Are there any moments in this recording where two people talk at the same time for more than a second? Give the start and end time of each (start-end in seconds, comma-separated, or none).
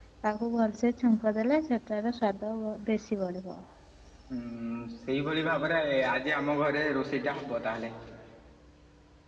none